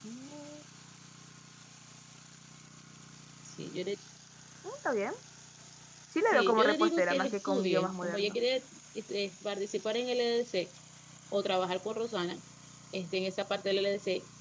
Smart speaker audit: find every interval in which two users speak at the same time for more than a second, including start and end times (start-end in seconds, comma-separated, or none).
6.3-8.4